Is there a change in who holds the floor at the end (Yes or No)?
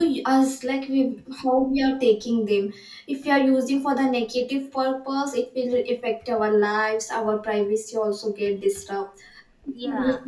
No